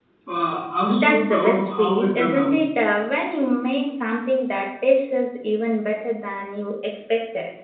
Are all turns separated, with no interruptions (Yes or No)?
No